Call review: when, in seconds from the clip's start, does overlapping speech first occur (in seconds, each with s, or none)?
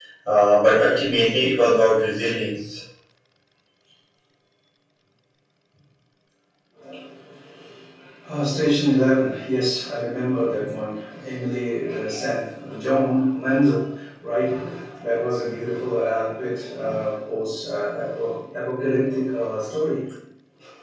none